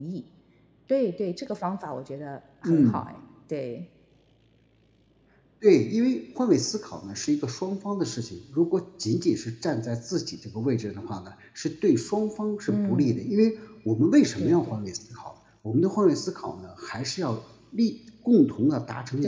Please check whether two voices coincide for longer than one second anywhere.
No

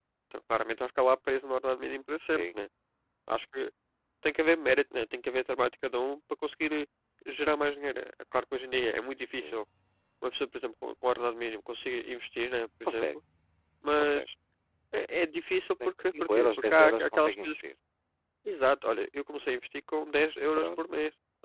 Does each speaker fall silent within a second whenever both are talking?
No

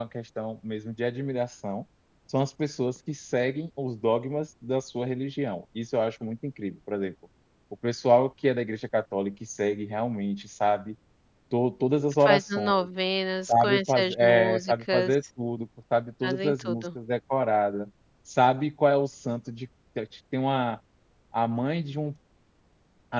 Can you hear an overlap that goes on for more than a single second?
Yes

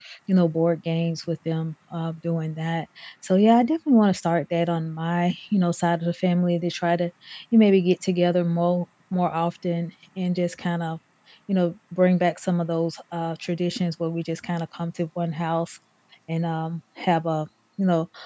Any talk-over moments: No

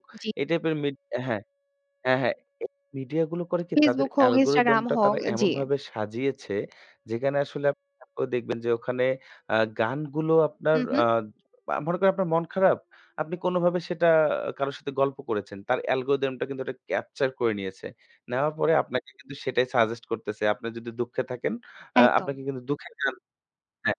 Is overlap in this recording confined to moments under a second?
No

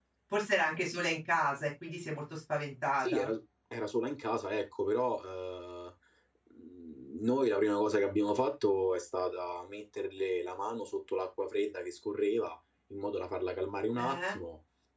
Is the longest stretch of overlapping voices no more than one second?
Yes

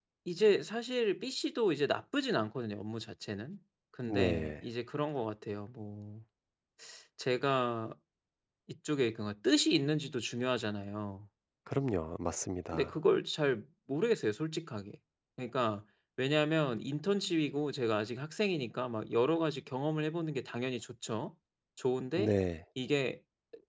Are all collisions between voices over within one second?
Yes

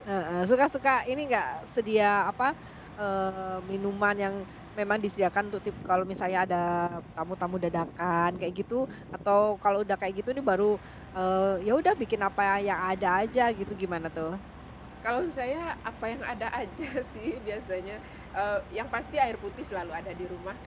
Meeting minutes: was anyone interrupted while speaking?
No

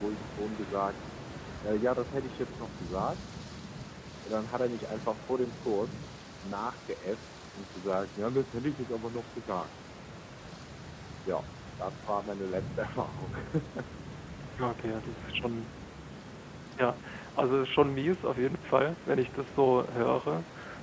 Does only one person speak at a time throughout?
Yes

